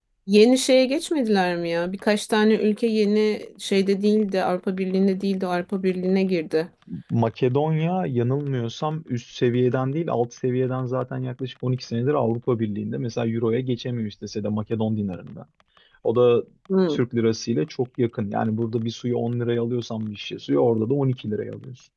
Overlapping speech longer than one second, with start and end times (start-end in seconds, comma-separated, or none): none